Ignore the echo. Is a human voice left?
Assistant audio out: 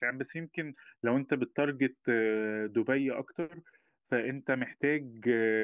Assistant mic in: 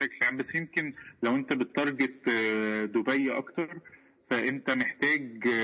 No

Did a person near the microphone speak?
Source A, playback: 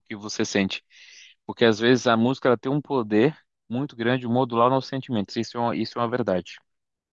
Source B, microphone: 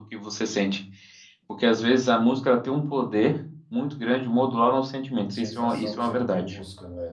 Yes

